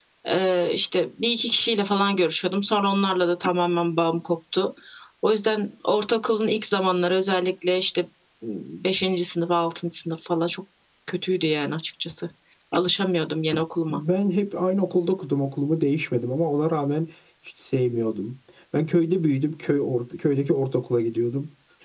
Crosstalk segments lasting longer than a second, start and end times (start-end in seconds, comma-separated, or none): none